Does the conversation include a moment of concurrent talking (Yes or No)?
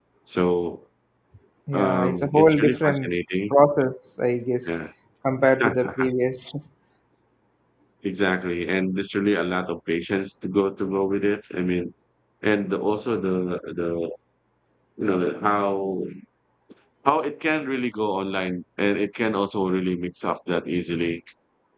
Yes